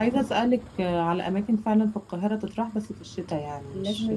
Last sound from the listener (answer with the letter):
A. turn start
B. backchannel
A